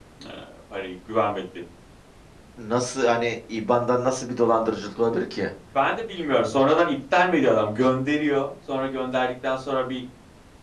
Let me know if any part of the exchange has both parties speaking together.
No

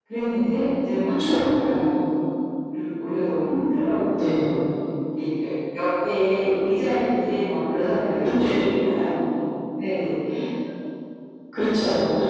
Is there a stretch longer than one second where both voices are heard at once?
No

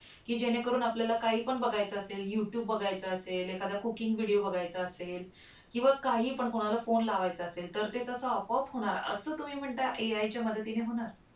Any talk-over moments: No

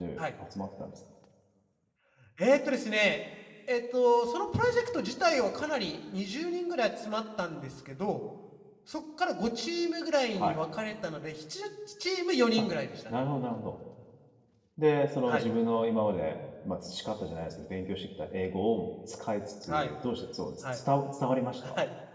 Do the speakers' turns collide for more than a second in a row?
No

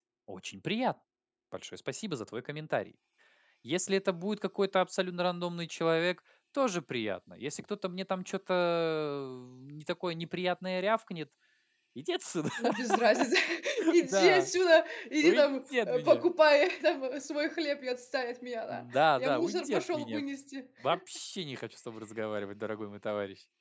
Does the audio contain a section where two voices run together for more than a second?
Yes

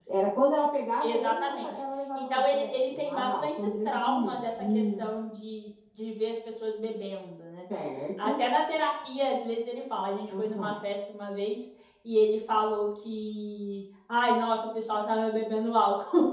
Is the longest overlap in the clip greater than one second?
Yes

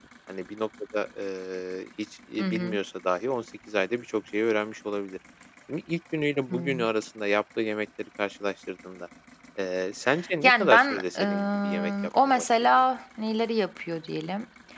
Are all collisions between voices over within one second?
No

